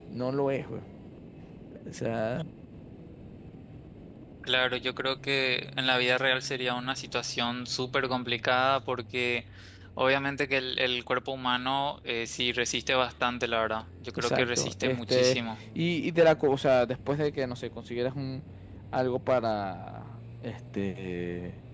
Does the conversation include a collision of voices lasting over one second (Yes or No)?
Yes